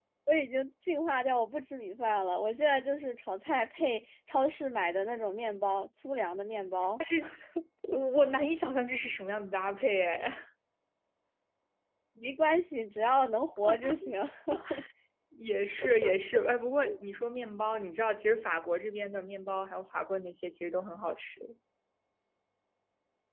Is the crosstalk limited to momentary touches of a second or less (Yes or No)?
Yes